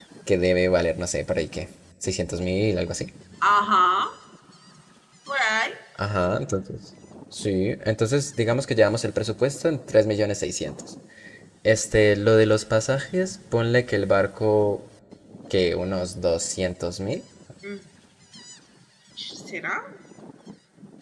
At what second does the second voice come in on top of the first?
none

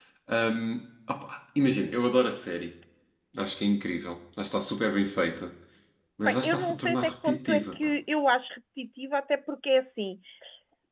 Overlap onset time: 6.3 s

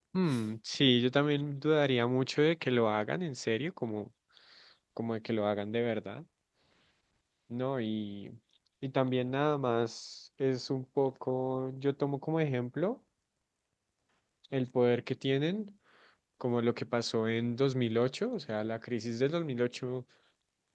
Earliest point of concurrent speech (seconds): none

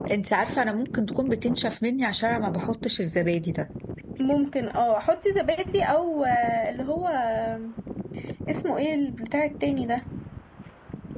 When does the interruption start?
none

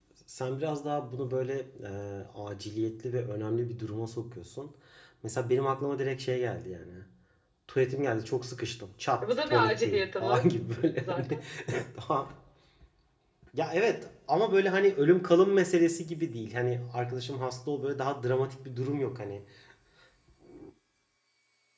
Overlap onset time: 9.2 s

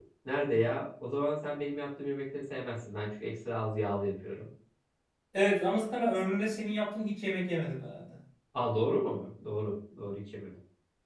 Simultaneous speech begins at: none

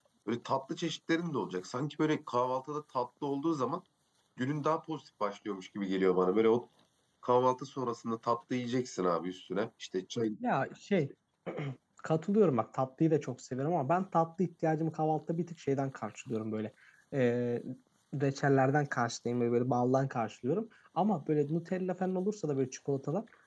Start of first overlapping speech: none

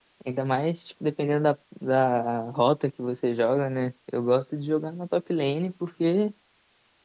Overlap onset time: none

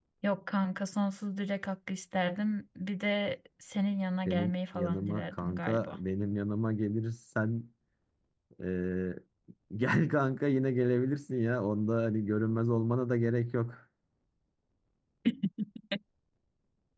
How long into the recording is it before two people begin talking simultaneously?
4.3 s

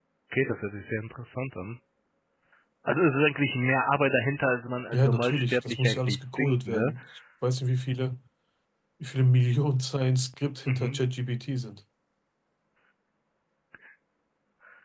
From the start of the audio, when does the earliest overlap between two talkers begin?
4.9 s

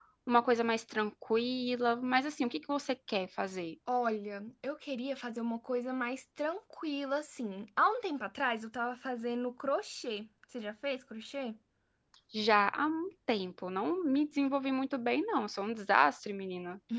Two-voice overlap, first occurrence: none

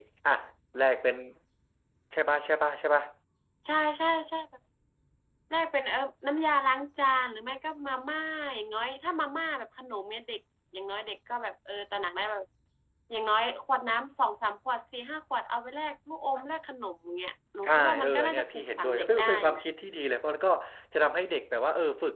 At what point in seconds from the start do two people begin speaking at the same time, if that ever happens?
17.6 s

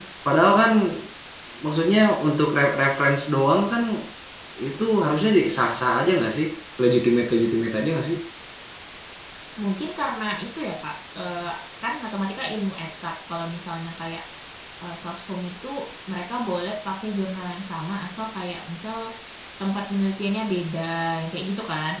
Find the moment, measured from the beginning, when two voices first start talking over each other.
none

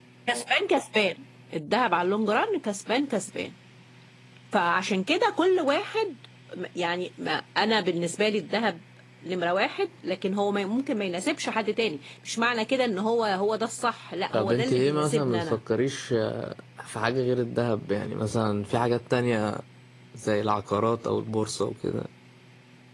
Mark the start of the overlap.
14.3 s

